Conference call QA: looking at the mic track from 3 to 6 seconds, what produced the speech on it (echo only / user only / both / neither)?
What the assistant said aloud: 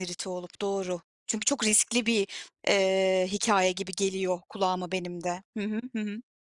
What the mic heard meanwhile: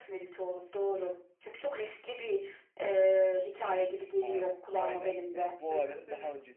both